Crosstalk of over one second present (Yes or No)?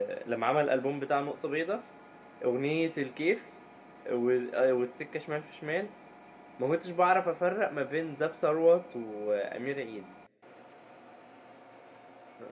No